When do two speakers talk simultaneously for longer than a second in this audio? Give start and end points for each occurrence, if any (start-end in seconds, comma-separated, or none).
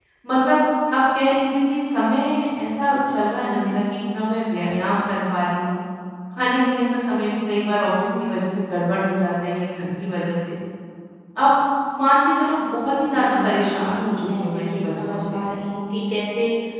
13.1-15.4